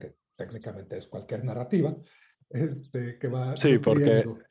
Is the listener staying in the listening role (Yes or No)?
No